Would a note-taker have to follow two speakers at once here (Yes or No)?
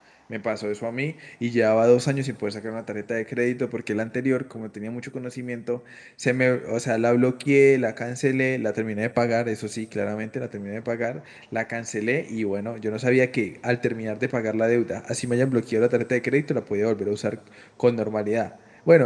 No